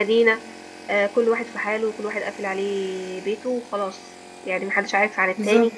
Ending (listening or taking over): listening